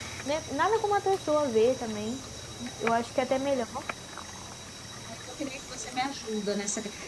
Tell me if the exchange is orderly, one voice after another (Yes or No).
Yes